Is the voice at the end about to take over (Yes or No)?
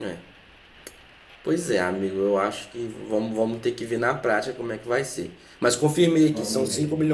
No